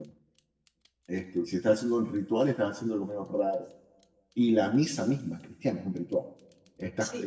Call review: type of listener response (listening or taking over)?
listening